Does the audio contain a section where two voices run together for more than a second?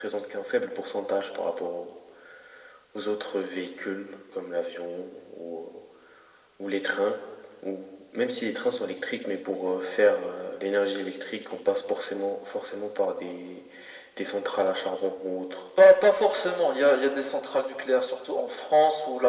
No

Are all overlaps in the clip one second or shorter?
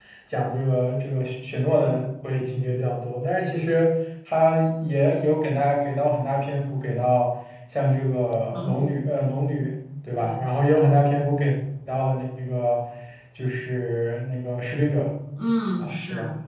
Yes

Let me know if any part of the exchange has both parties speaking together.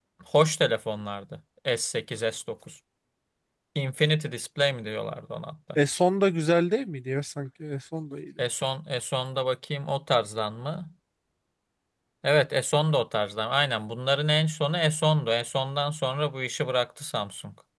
No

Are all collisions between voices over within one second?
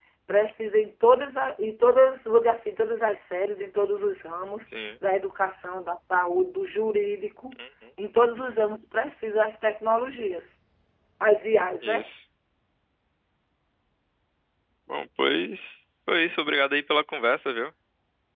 Yes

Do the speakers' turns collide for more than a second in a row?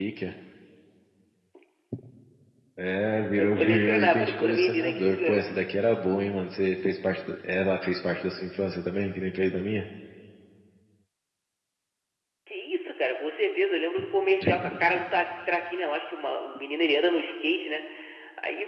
Yes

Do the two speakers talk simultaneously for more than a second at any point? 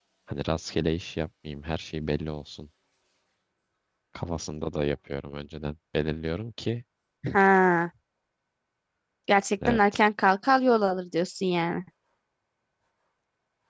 No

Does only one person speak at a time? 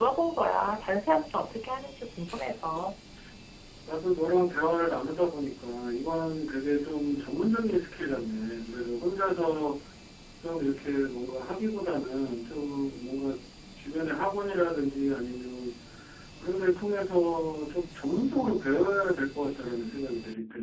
Yes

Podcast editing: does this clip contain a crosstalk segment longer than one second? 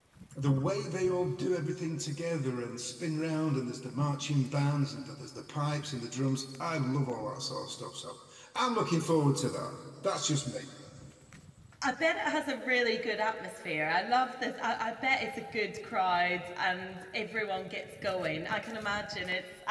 No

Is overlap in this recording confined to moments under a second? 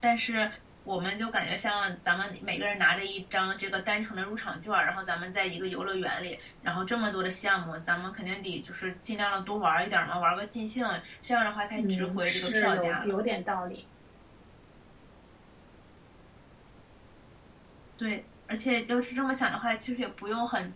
No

